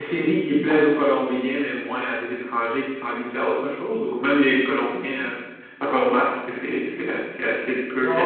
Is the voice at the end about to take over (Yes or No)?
Yes